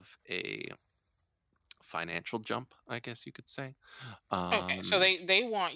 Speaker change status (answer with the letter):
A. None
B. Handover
B